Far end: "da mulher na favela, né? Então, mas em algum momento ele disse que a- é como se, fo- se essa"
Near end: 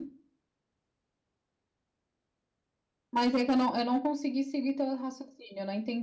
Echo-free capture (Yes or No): Yes